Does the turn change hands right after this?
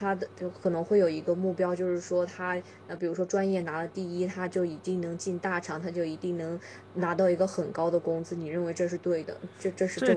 Yes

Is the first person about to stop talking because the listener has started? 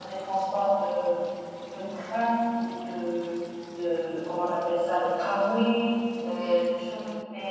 No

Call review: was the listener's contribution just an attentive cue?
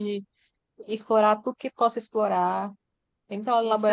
Yes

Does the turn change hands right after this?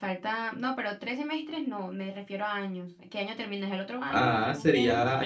Yes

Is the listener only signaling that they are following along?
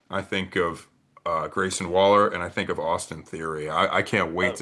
Yes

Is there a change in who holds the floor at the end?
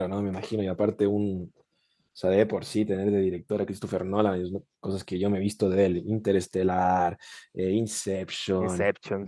No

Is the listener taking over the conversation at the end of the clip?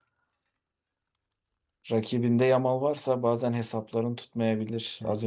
Yes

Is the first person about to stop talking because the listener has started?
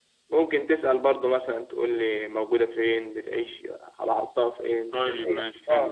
Yes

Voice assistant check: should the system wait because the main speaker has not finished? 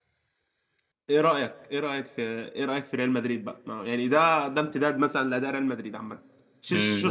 No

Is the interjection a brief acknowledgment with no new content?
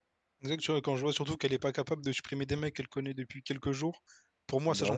Yes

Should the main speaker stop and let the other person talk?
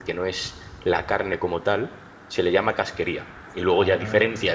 No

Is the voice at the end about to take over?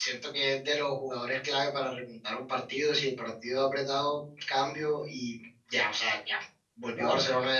No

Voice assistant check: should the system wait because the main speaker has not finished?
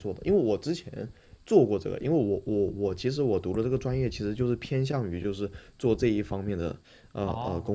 No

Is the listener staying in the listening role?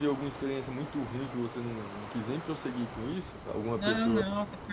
No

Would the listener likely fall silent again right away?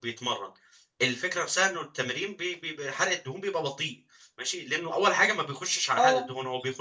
Yes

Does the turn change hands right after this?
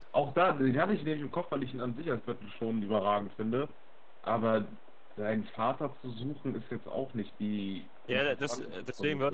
Yes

